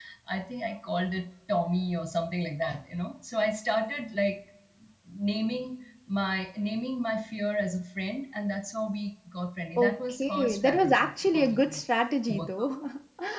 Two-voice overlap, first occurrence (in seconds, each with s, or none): 9.8 s